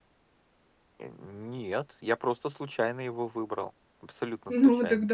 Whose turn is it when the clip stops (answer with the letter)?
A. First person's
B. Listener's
B